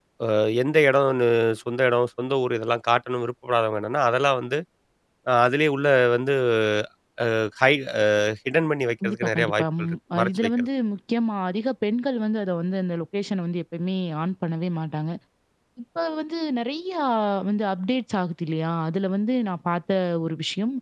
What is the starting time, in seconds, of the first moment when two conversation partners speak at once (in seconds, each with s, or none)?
9.0 s